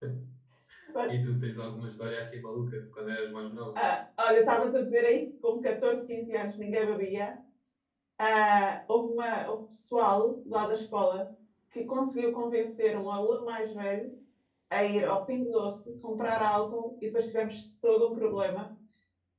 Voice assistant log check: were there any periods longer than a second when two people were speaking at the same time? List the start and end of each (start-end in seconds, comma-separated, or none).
none